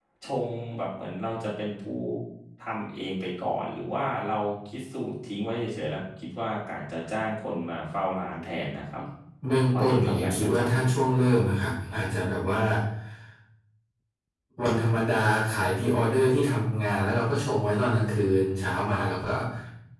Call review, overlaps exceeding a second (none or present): present